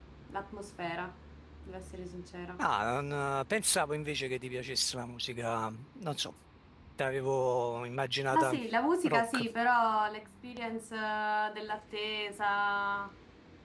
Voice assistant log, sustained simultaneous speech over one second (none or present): none